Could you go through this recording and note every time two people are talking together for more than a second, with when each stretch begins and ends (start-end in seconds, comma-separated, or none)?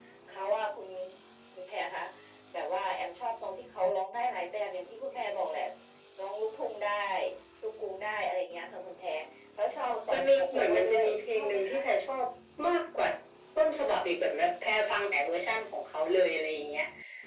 9.8-11.8